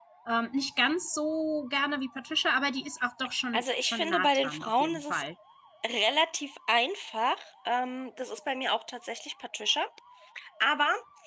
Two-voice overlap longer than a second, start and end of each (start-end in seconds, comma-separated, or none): 3.5-5.2